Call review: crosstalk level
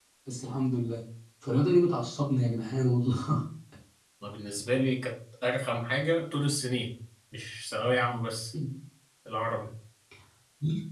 none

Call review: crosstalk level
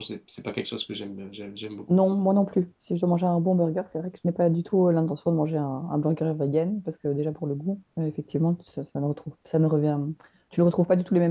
none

